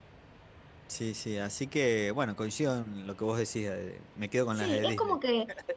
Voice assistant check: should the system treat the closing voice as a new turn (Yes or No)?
Yes